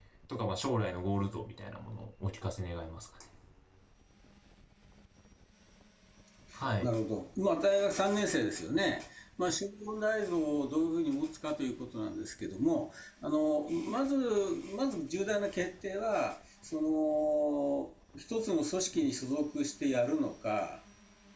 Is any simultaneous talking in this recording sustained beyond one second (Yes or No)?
No